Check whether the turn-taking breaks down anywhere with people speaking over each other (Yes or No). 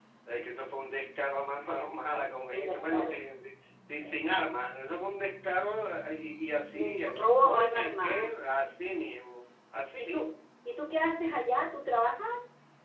Yes